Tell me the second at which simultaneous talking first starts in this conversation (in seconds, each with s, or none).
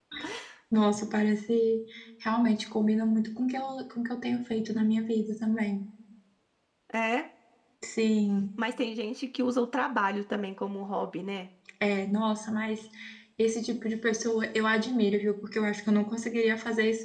none